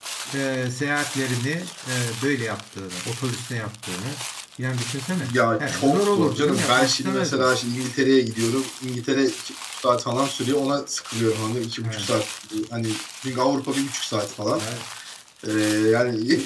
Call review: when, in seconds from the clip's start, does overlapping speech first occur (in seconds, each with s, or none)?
5.2 s